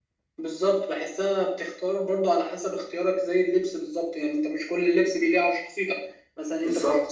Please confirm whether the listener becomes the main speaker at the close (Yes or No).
No